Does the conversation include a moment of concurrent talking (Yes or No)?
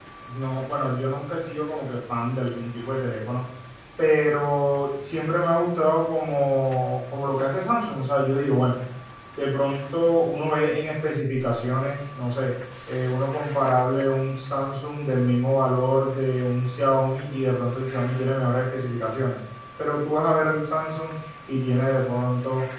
No